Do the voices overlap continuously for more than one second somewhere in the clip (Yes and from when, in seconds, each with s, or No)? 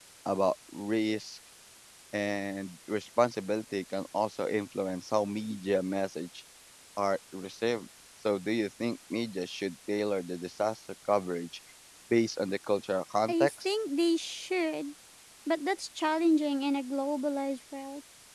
No